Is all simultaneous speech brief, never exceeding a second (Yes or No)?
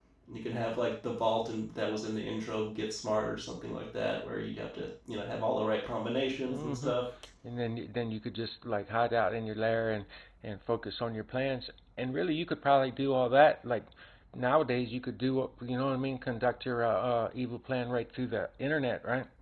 Yes